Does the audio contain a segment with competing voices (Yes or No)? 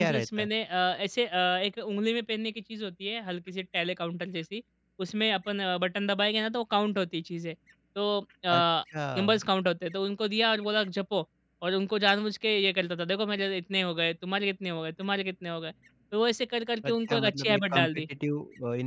Yes